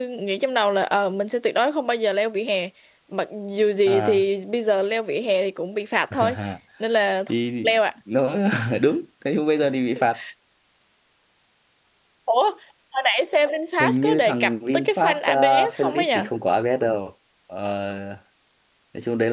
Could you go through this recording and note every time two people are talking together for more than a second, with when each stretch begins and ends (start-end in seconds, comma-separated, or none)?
13.8-16.2